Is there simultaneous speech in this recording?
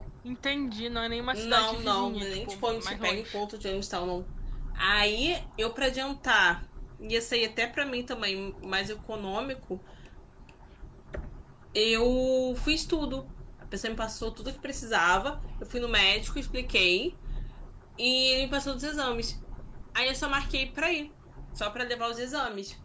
Yes, from 1.3 s

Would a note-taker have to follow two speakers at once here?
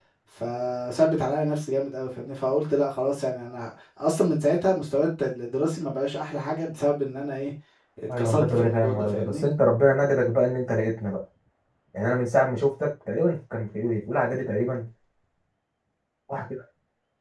Yes, from 8.2 s

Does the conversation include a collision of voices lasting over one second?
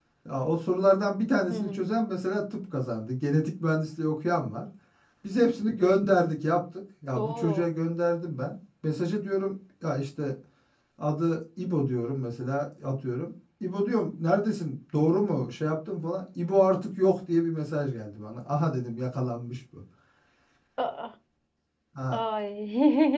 No

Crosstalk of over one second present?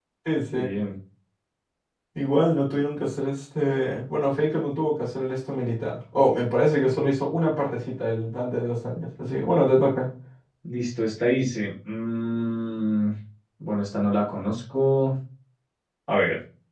No

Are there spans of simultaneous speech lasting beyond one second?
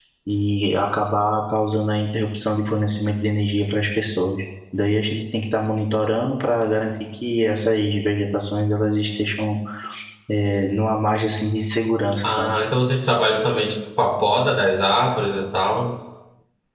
No

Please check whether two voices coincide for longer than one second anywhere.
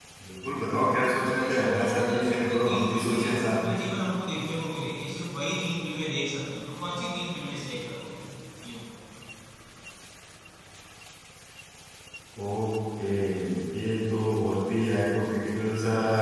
Yes, from 1.2 s

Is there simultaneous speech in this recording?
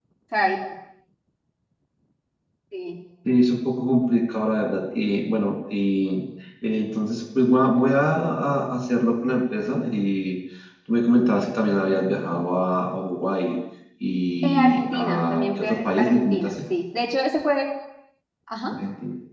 Yes, from 14.4 s

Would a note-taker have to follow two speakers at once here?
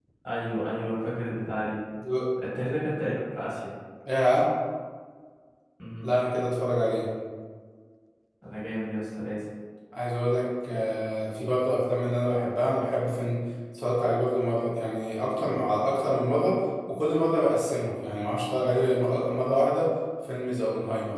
No

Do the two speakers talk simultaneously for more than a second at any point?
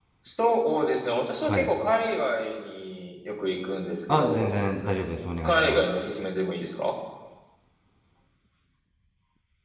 No

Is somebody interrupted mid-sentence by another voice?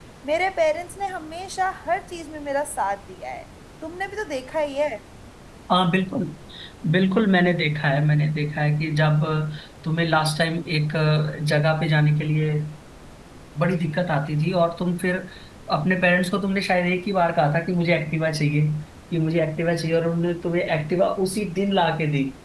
No

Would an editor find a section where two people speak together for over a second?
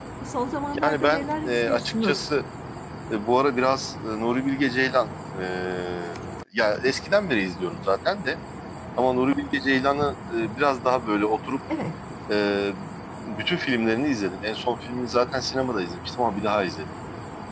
Yes, from 0.8 s

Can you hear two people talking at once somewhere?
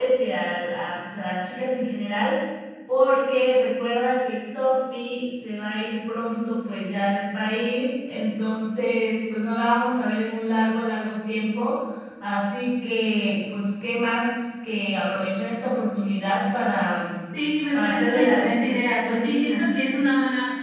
Yes, from 17.7 s

